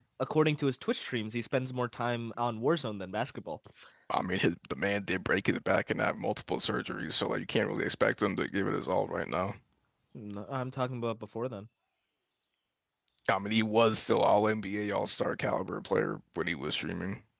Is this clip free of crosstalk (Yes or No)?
Yes